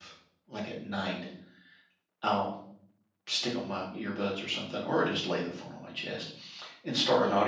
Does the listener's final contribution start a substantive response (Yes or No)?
No